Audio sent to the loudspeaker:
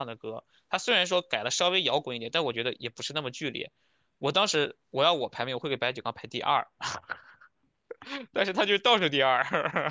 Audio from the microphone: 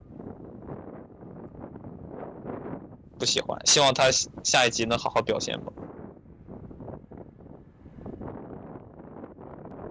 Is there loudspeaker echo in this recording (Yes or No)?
No